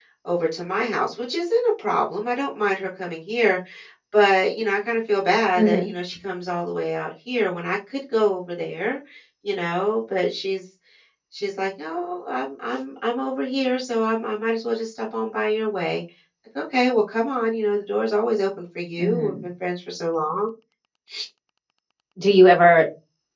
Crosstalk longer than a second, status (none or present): none